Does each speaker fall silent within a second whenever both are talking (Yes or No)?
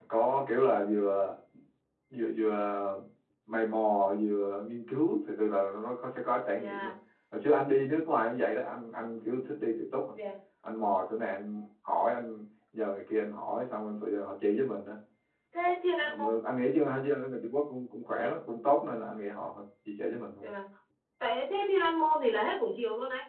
Yes